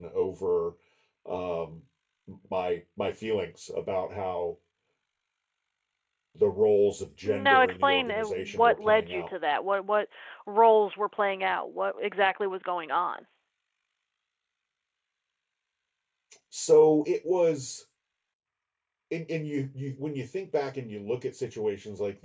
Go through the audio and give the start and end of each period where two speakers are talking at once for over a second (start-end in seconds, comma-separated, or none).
7.2-9.3